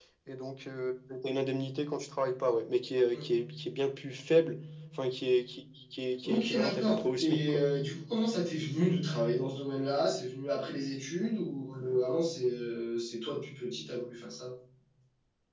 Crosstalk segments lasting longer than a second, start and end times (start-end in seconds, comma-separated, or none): 6.2-7.6